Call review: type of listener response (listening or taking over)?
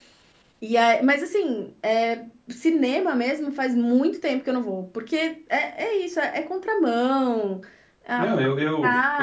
taking over